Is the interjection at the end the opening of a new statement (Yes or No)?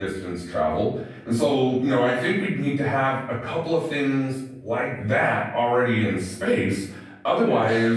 No